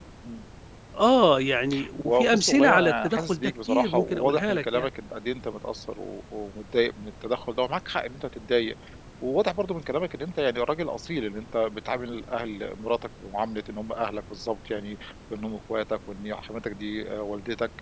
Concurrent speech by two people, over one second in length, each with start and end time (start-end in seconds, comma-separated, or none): 2.0-4.9